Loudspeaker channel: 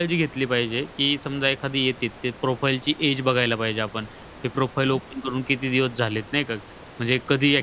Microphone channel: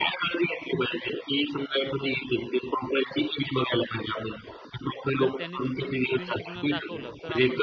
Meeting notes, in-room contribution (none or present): present